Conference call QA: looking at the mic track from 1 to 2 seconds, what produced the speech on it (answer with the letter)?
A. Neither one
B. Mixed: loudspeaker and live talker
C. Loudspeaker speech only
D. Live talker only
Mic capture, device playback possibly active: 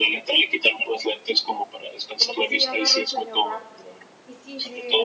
C